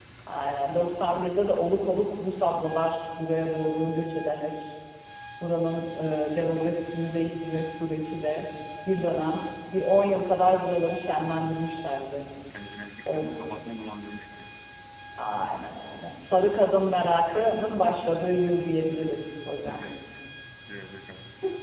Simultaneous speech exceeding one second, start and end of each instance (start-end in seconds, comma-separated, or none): none